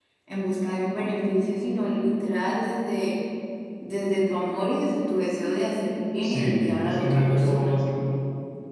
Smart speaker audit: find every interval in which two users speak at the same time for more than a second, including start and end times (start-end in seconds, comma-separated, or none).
6.2-7.7